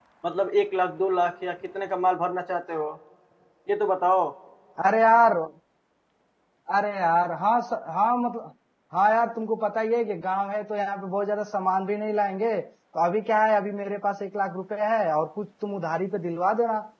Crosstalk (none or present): none